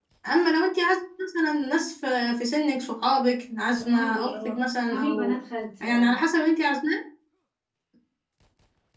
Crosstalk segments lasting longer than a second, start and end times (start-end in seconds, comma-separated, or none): 3.8-5.4